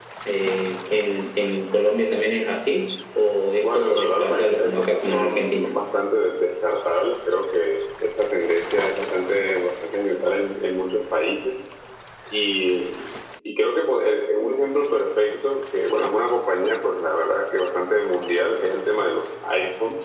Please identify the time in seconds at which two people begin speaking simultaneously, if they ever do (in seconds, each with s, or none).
3.6 s